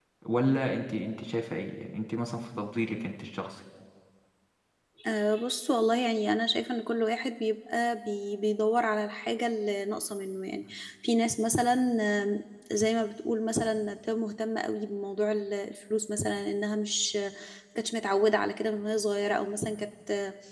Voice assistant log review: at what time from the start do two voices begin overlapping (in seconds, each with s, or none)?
none